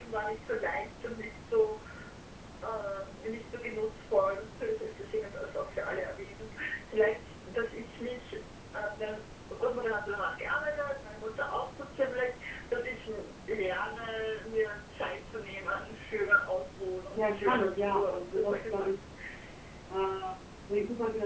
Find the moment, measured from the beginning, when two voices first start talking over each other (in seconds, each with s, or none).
17.2 s